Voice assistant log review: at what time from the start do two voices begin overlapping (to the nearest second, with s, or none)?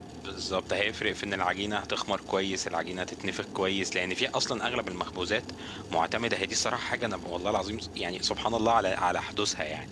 none